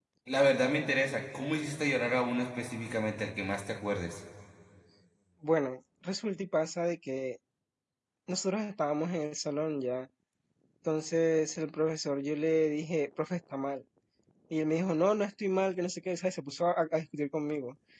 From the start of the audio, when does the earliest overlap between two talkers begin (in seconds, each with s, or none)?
none